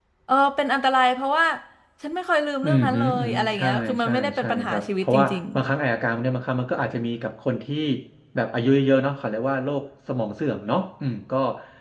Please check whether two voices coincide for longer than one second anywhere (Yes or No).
Yes